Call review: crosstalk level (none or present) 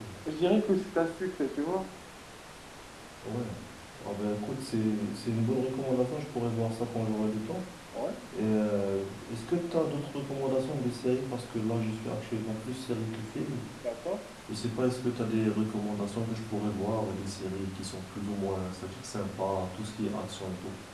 none